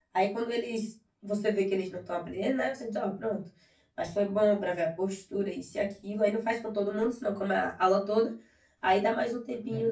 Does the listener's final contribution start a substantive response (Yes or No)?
No